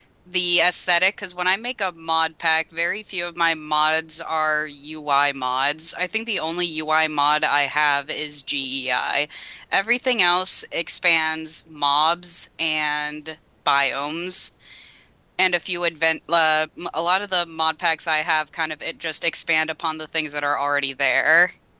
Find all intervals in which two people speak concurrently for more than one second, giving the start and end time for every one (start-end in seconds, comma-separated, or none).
none